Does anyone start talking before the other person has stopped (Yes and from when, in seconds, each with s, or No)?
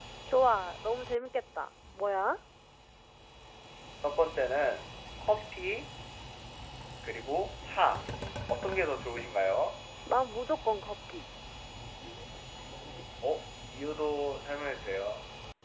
No